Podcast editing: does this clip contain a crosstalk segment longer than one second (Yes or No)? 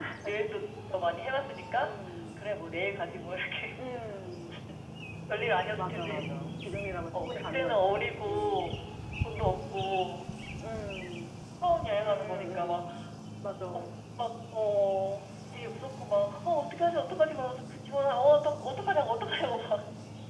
Yes